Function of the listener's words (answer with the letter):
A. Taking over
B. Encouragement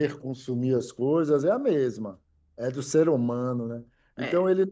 B